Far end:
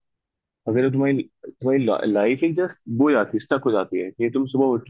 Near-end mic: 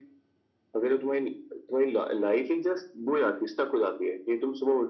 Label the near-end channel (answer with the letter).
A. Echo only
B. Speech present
A